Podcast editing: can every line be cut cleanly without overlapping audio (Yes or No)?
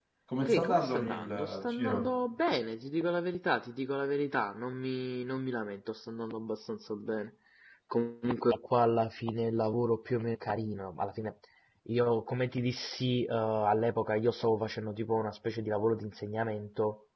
No